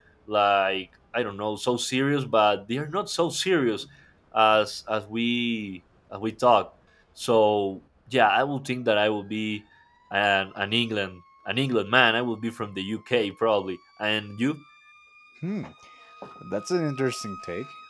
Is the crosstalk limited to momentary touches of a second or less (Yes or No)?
Yes